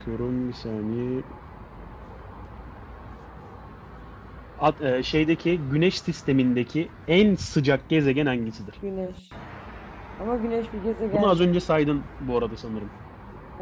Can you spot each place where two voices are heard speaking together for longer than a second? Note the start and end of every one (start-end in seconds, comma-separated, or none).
none